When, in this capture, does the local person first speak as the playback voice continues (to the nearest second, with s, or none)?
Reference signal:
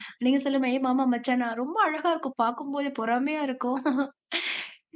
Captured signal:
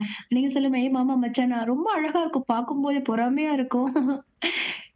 none